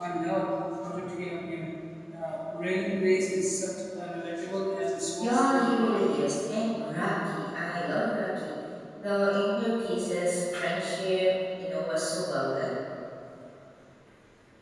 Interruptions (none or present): present